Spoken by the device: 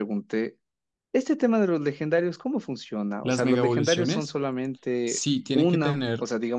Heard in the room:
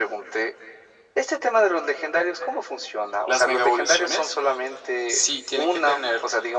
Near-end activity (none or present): none